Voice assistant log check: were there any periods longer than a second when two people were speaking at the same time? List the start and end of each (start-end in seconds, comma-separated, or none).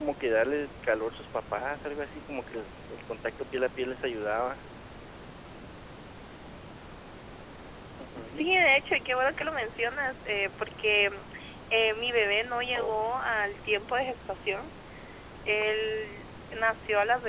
none